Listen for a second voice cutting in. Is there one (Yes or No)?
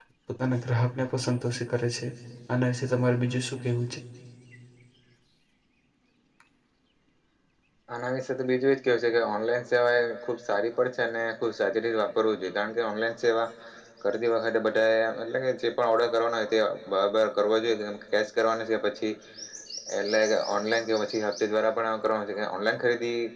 No